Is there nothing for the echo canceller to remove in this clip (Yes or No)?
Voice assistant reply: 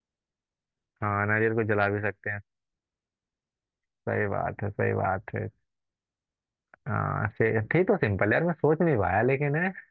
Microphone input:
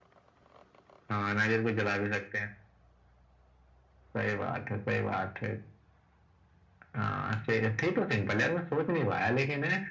No